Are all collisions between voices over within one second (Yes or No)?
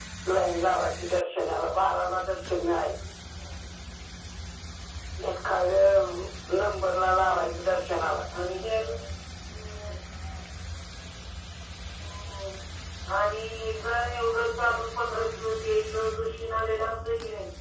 Yes